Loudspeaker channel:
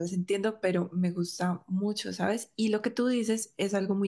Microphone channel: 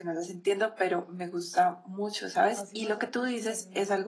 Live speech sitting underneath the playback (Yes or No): Yes